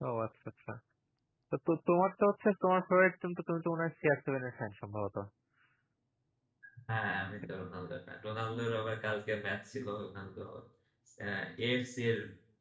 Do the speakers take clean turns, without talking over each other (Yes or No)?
Yes